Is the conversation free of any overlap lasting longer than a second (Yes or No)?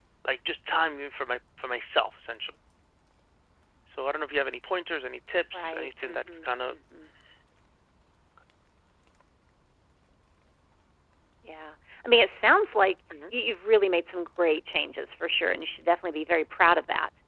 No